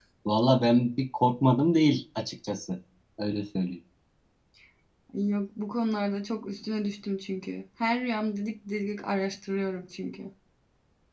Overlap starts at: none

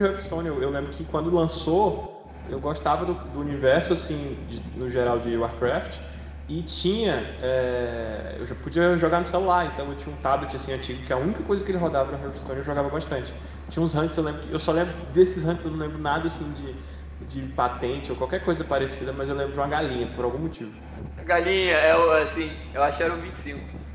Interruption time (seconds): none

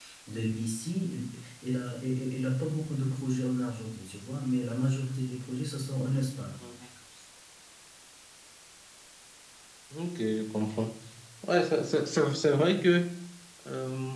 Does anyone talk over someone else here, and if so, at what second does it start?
none

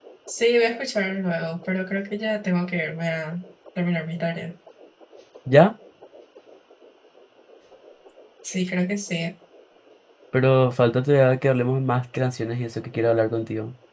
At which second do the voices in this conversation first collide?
none

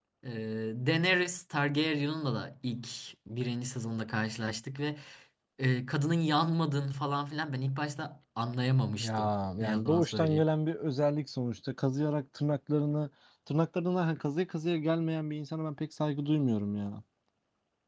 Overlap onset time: 9.0 s

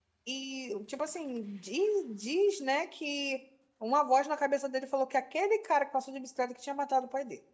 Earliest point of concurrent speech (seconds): none

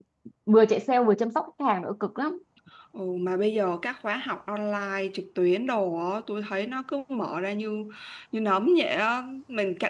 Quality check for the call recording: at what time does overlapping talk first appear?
none

